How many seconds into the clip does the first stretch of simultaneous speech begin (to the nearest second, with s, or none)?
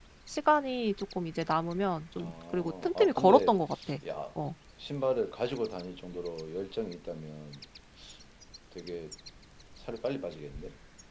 2 s